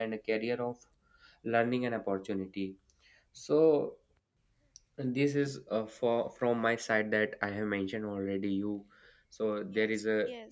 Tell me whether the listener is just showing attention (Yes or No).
No